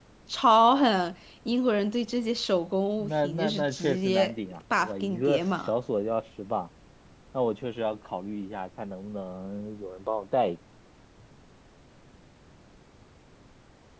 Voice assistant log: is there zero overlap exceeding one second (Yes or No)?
No